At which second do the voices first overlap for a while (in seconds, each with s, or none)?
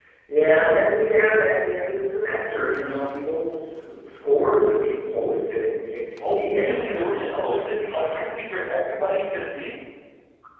6.2 s